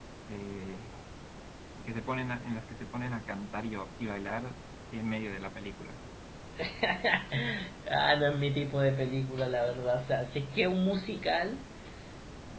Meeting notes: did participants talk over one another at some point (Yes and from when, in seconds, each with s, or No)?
No